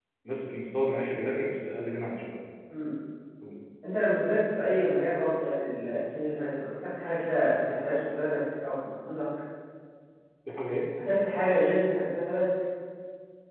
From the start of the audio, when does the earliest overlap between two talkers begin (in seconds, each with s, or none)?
none